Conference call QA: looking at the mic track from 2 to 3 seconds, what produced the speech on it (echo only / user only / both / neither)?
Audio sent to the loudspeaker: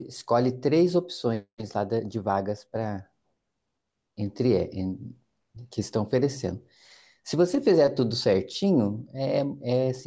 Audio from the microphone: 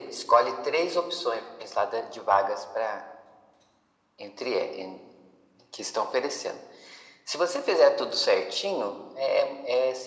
echo only